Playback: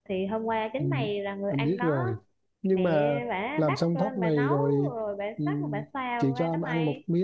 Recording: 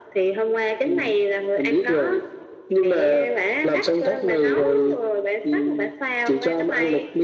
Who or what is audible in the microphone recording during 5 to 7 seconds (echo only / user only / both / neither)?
echo only